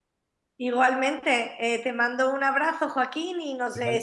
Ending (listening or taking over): listening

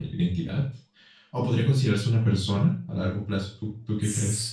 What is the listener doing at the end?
taking over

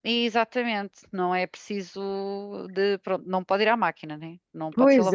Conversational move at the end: taking over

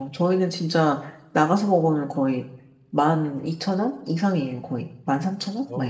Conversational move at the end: taking over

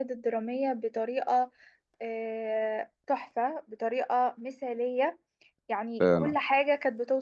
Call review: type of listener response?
listening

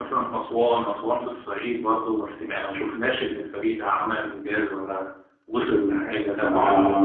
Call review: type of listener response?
taking over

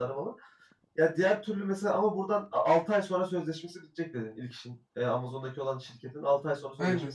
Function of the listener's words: taking over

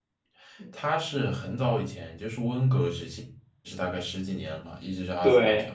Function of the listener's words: taking over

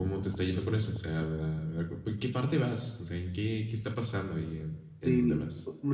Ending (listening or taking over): taking over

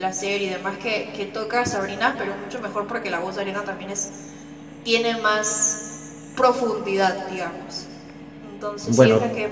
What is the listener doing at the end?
listening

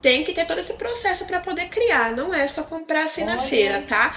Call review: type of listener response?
listening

